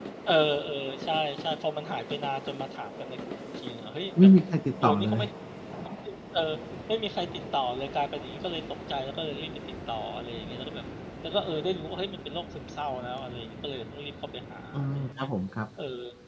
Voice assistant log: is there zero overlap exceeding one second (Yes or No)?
Yes